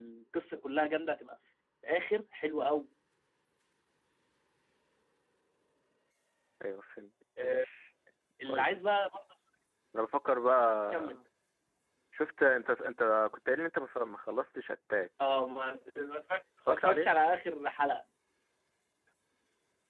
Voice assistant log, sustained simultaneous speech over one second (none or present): none